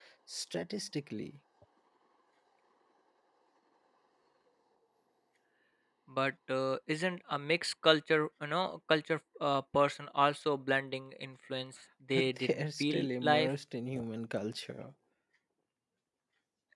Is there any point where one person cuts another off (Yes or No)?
Yes